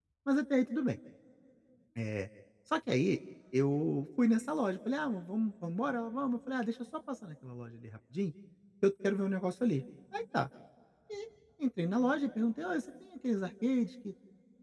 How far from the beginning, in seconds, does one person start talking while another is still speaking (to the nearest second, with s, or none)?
none